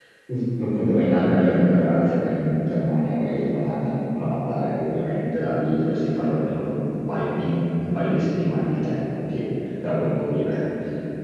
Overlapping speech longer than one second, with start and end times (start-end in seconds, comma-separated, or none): none